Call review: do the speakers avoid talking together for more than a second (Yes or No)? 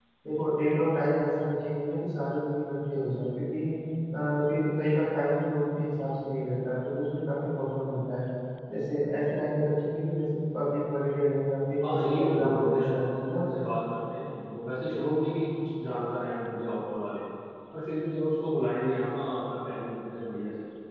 No